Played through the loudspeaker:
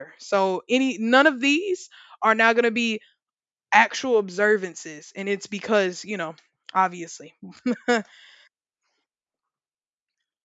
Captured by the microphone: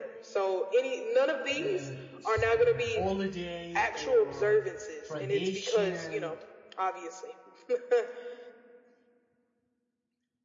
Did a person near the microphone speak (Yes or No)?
Yes